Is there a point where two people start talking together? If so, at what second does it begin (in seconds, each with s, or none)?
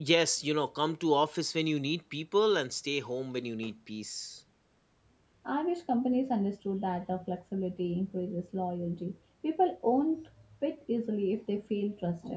none